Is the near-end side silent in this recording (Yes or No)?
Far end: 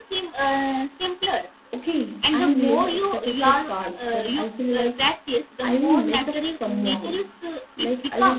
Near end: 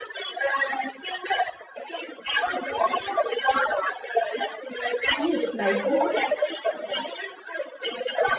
No